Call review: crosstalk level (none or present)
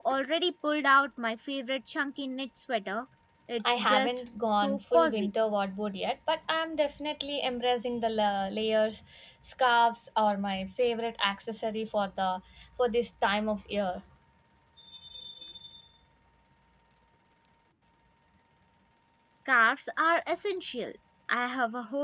present